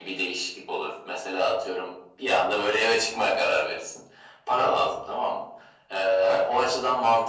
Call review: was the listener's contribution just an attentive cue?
Yes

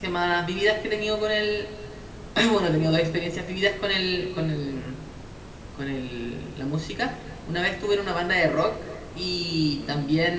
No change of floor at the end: Yes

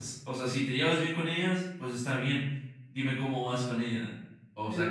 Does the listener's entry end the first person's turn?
Yes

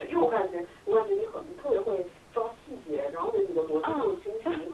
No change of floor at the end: Yes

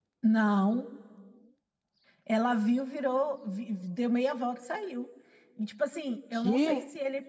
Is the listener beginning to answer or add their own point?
No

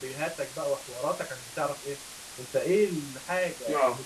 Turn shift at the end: No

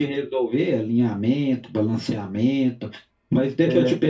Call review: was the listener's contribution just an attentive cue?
Yes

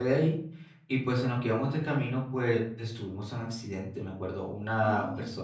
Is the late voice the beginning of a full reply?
No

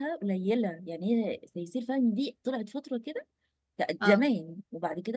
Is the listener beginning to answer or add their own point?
No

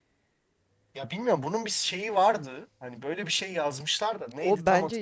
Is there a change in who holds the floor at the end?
Yes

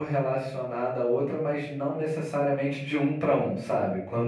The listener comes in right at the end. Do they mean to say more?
No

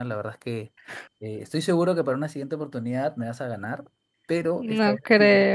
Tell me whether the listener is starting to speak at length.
Yes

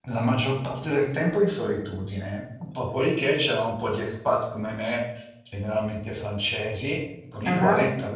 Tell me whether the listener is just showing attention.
Yes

